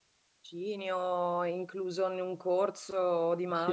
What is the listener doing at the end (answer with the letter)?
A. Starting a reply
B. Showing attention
A